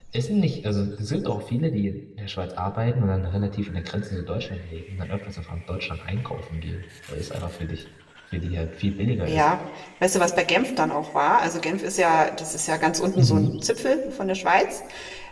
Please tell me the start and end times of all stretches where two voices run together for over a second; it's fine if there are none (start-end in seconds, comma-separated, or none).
none